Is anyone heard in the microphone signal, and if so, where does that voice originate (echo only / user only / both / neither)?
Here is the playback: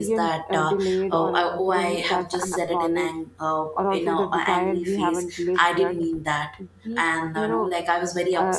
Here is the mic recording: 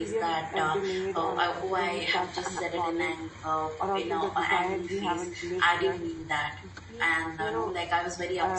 echo only